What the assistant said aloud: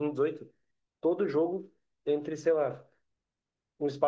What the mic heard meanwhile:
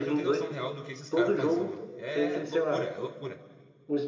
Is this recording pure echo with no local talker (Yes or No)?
No